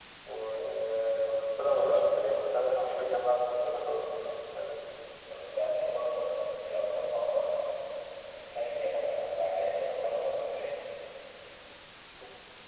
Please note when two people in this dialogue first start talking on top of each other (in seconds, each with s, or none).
none